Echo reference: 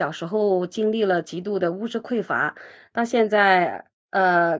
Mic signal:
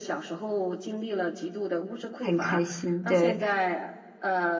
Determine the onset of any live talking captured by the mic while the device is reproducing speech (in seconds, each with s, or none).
2.2 s